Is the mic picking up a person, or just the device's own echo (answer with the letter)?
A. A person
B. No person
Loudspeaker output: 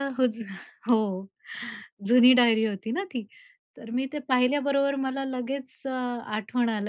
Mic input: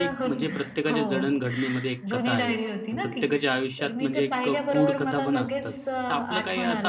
A